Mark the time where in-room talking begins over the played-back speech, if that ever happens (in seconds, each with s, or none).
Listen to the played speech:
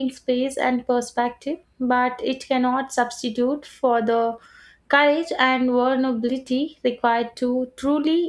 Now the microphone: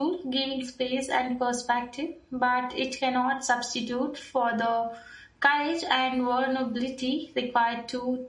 none